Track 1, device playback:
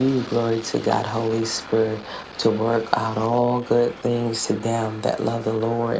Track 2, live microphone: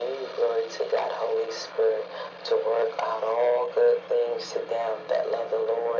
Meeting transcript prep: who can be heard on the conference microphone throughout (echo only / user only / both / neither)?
echo only